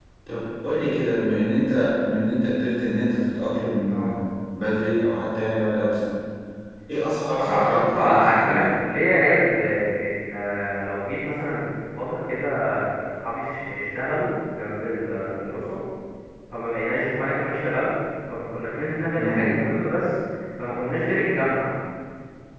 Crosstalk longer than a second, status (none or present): present